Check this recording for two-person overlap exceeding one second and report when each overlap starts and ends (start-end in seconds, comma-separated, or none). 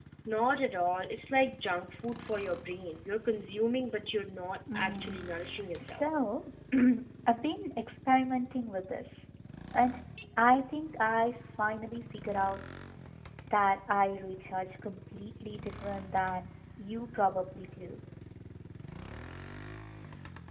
none